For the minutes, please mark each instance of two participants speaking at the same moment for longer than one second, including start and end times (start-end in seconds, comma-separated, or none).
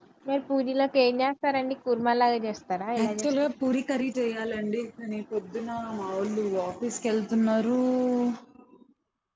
none